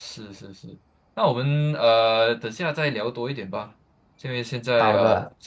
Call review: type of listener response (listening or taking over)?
listening